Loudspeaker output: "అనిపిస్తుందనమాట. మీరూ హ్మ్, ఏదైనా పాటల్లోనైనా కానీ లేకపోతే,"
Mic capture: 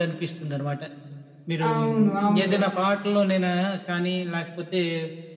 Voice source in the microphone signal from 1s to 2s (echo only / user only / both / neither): both